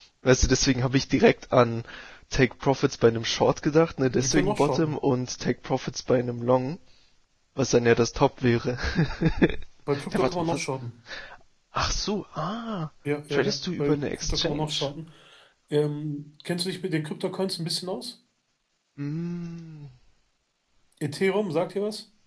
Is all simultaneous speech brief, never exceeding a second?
No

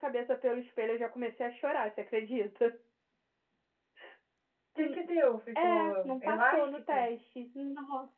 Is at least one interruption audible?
Yes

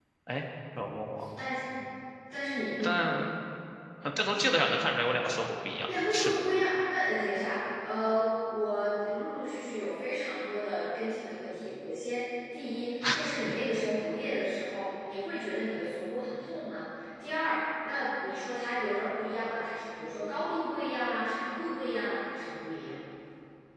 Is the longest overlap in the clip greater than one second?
No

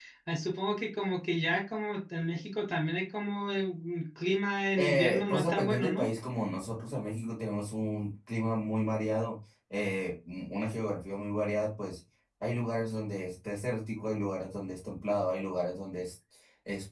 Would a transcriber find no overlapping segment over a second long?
No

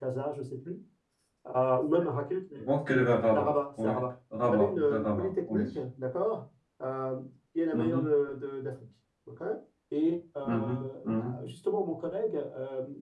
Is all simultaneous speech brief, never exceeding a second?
No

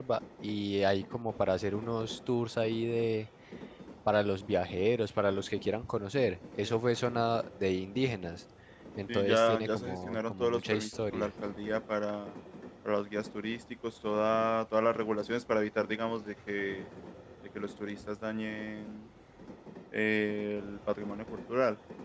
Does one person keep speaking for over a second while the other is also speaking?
Yes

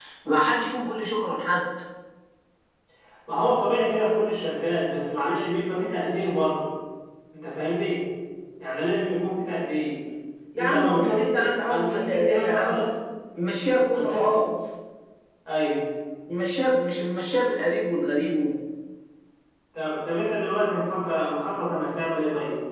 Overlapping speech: Yes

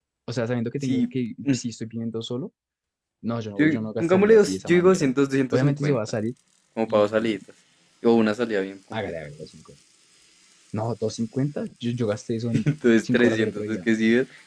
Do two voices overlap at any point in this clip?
Yes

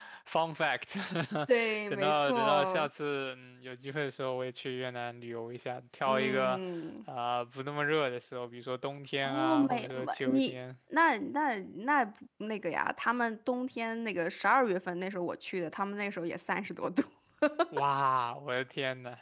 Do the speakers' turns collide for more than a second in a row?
Yes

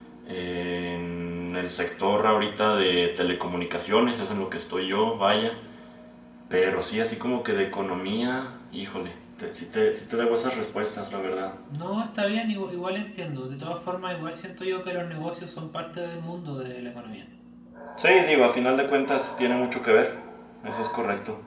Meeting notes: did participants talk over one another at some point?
No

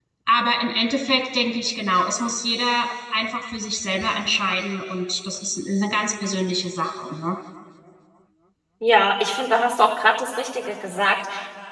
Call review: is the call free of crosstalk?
Yes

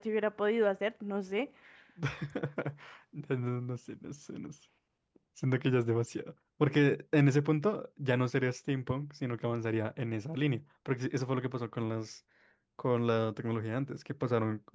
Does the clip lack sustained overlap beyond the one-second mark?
Yes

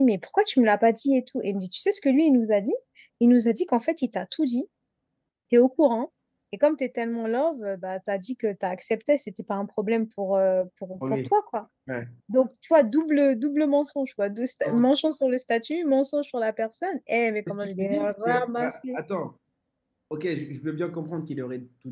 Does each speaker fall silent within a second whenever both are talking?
No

